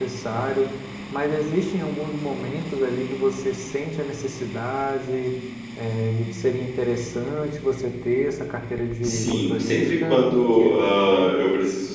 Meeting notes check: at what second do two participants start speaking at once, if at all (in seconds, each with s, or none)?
9.0 s